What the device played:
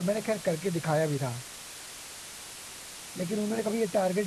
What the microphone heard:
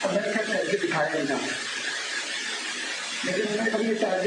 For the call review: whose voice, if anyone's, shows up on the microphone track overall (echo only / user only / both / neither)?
echo only